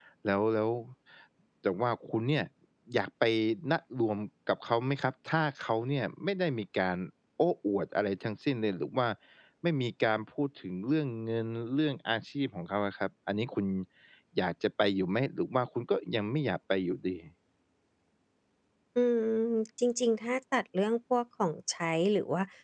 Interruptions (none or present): none